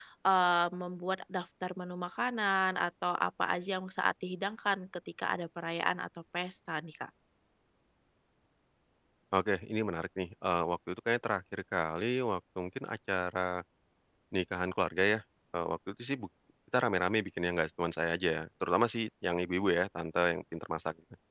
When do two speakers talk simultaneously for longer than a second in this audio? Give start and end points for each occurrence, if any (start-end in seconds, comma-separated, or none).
none